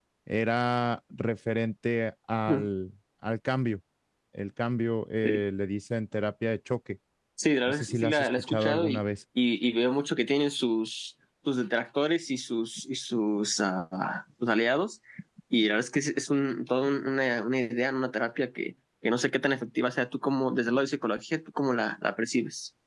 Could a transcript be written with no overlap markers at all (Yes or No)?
No